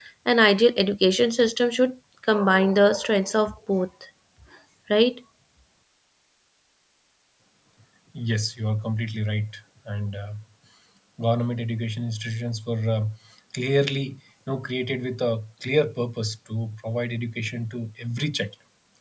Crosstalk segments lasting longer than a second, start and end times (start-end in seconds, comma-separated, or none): none